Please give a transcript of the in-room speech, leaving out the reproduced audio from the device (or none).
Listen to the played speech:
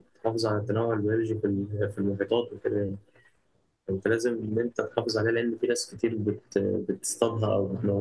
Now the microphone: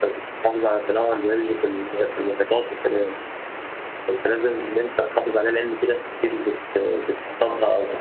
none